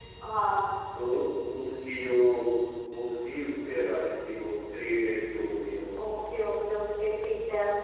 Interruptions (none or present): none